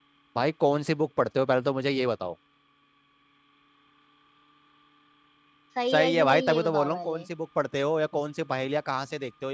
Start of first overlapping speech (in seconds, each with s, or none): 5.9 s